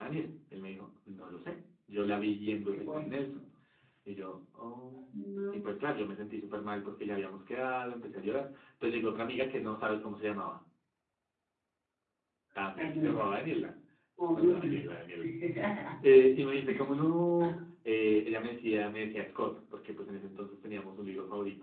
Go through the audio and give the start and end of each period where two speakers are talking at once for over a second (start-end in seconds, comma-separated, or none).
none